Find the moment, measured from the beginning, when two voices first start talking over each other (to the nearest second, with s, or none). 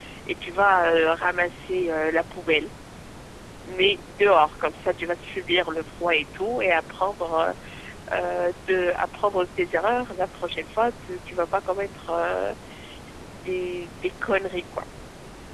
none